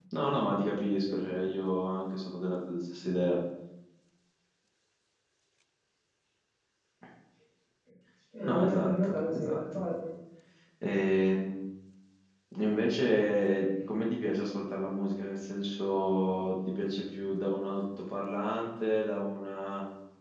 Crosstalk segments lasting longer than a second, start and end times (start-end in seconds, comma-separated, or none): 8.4-9.8